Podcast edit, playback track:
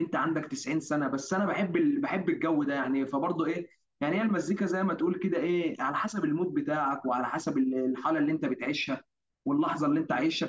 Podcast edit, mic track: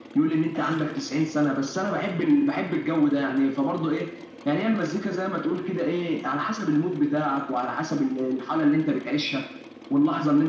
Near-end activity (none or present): none